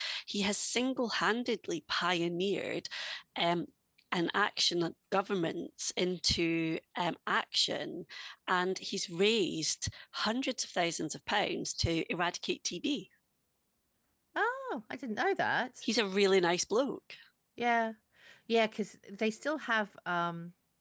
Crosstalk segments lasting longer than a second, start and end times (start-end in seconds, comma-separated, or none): none